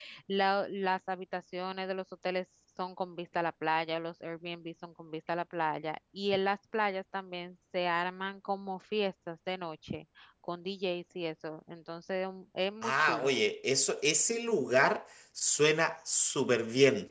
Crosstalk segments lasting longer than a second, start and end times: none

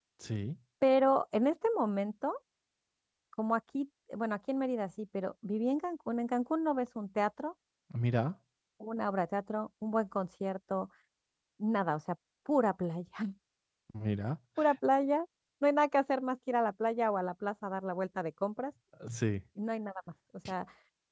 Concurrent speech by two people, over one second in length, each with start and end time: none

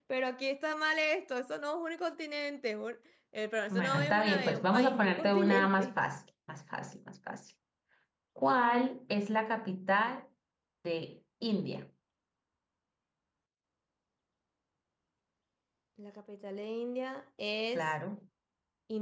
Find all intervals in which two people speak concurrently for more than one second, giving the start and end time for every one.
3.7-5.9

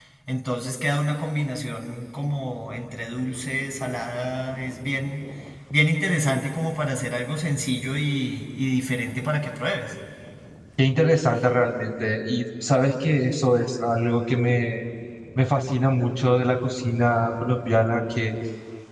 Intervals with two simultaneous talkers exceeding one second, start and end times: none

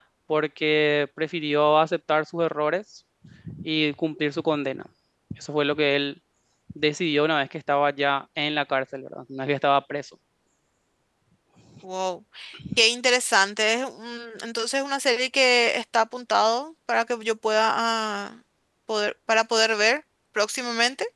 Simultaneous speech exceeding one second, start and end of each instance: none

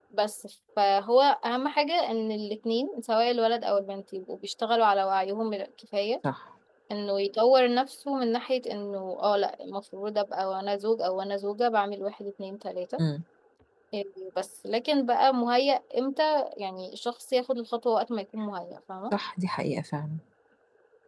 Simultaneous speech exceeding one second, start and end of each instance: none

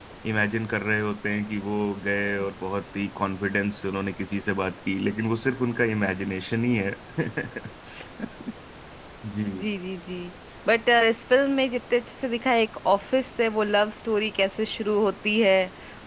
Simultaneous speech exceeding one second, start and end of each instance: none

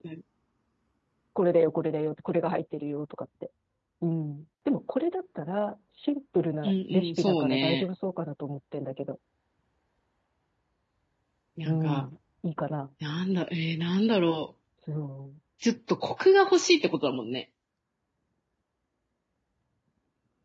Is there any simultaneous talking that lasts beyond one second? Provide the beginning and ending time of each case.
6.6-7.8

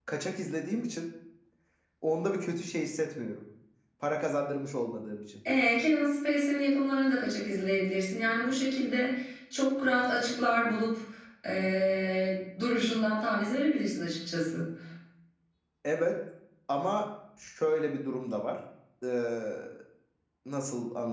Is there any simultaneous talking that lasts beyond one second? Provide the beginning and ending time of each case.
none

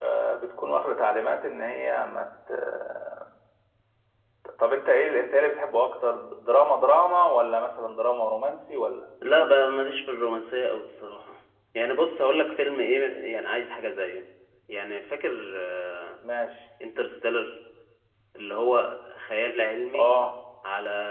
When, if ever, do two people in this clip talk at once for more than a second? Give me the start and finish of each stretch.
none

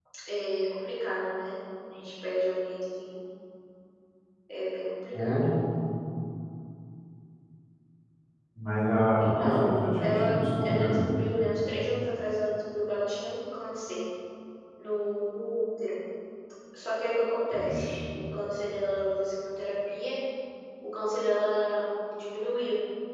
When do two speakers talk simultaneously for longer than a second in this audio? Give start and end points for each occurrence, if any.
9.2-11.1

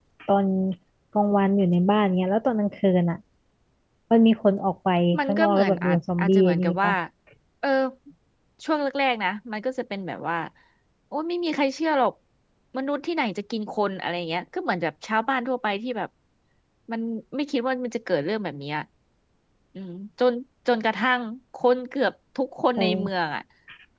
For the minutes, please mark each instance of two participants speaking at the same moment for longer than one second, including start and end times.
5.2-6.9

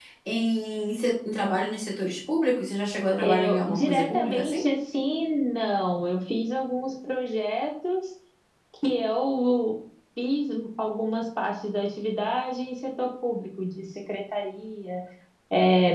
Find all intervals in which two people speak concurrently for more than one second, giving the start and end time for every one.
3.2-4.6

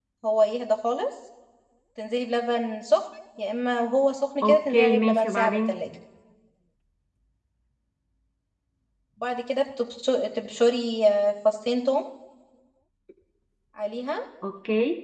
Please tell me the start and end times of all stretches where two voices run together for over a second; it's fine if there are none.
4.4-5.8

